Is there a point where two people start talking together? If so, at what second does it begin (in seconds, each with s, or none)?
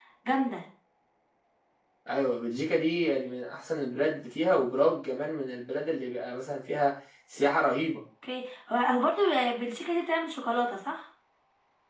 none